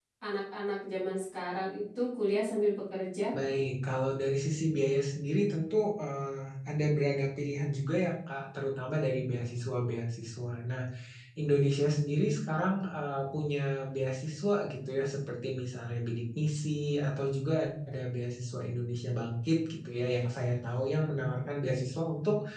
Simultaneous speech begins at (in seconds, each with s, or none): none